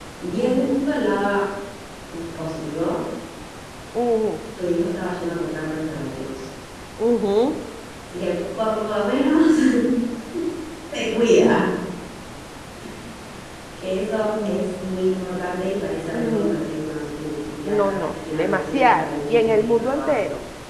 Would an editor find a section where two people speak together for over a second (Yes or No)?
Yes